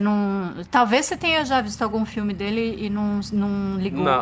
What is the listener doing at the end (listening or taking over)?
taking over